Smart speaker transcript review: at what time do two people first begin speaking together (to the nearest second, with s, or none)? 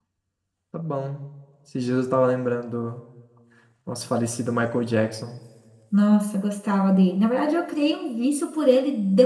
none